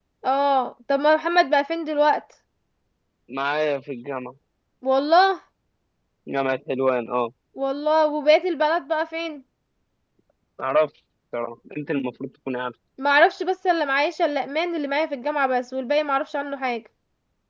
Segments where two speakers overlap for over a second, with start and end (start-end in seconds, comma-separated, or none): none